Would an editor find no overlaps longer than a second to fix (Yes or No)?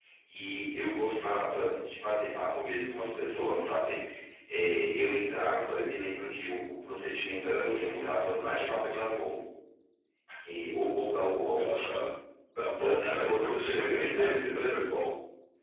No